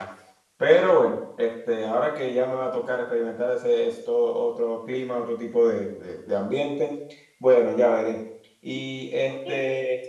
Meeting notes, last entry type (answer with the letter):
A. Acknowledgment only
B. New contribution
B